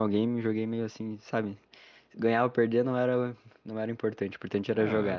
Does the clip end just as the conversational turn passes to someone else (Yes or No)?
Yes